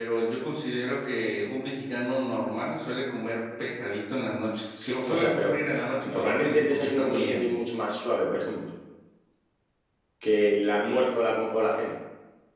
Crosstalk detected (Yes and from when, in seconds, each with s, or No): Yes, from 5.1 s